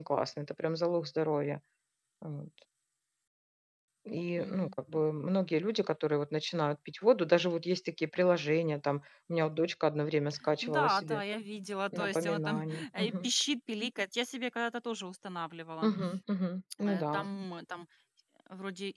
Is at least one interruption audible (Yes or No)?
Yes